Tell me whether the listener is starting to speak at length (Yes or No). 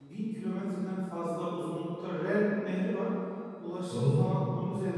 No